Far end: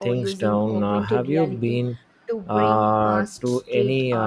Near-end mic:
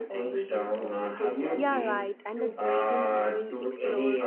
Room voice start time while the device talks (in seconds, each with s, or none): 1.5 s